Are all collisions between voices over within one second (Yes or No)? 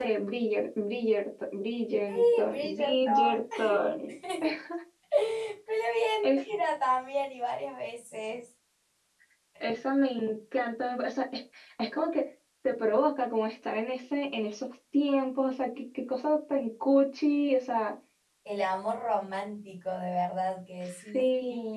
No